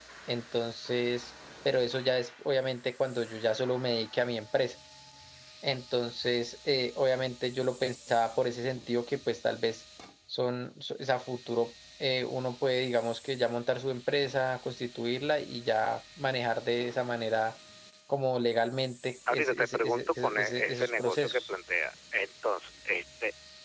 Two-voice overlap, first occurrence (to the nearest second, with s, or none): 19 s